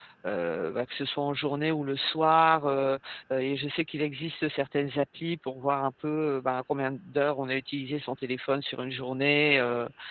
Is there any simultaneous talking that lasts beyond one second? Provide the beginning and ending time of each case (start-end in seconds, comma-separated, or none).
none